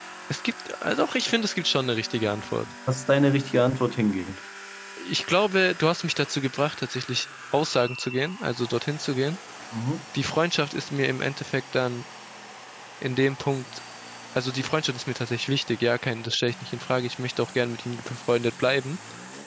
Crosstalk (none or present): none